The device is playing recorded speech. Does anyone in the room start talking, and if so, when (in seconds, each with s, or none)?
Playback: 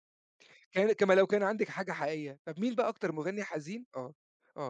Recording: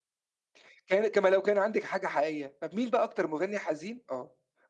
none